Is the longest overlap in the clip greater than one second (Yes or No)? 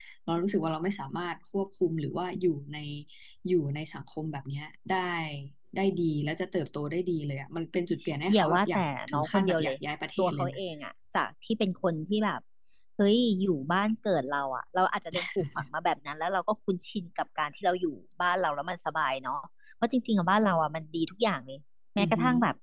Yes